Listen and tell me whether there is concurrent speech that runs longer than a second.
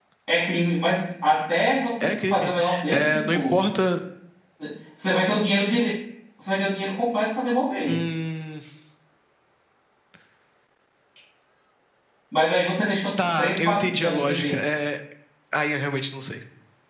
Yes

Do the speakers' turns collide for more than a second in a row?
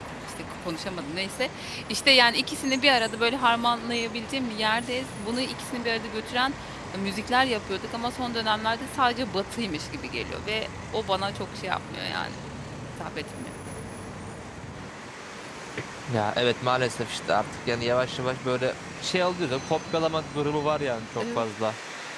No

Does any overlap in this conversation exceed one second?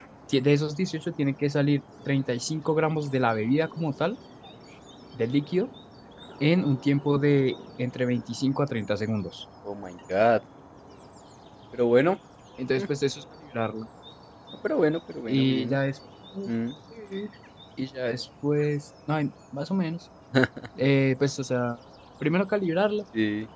No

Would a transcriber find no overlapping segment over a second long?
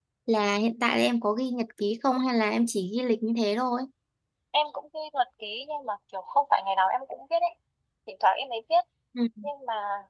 Yes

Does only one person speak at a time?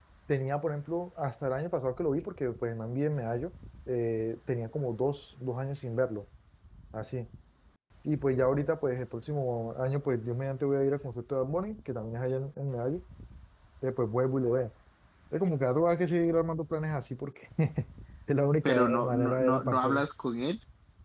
No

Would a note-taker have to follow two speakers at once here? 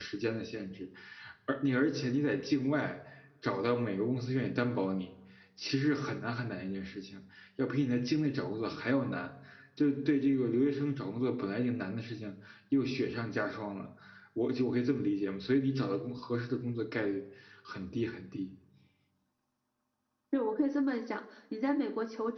No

